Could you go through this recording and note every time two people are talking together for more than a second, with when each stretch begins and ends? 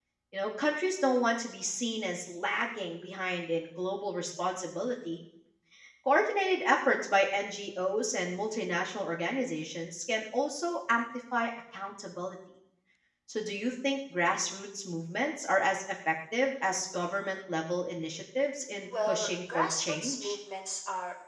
19.1-20.4

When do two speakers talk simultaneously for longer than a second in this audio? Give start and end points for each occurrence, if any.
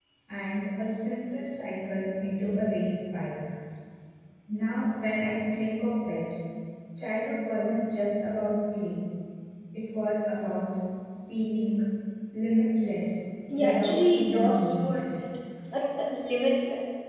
13.5-15.0

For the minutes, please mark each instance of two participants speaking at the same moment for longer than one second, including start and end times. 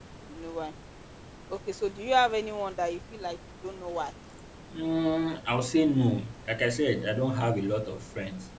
none

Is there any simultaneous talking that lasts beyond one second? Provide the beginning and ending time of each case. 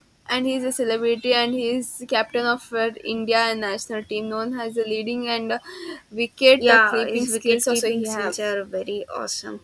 6.6-8.3

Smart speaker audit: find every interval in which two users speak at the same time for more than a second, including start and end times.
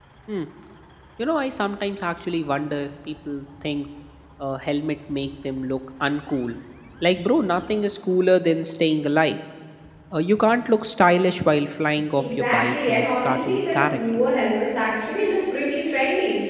12.2-14.2

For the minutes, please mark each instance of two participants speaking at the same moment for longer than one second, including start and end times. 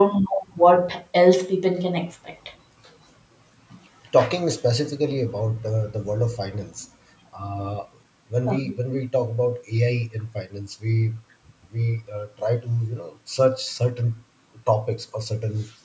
none

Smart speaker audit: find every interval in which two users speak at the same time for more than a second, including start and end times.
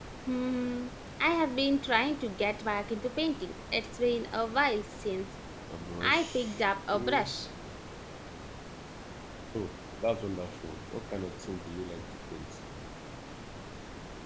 6.0-7.3

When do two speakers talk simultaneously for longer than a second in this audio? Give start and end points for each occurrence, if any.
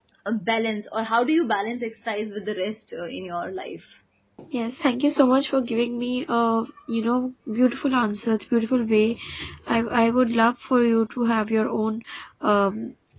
none

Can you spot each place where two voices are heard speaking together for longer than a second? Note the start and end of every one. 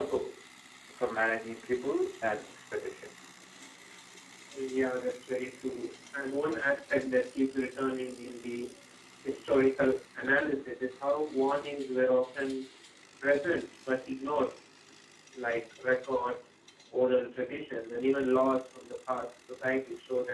none

